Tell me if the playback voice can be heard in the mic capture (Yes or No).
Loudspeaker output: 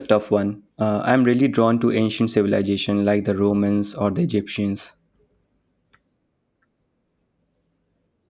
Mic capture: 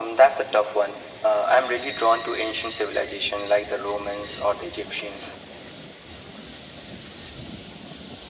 Yes